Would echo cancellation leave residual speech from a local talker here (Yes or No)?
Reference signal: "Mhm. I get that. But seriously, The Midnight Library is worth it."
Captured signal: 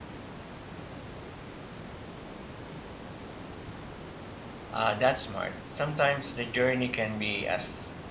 Yes